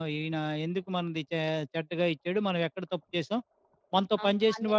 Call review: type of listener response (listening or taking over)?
taking over